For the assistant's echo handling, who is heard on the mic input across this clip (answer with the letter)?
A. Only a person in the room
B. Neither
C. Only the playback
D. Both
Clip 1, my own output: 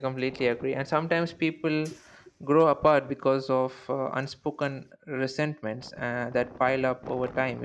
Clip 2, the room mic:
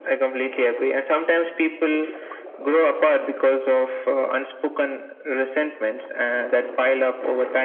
C